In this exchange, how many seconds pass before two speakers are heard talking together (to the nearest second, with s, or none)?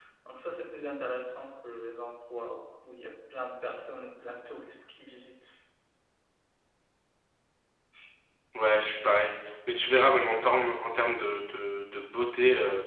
none